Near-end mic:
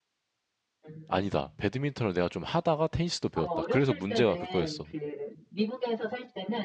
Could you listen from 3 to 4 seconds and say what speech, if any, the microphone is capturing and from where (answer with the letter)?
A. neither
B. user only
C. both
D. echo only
C